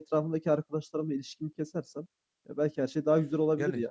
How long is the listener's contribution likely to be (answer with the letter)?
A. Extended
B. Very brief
A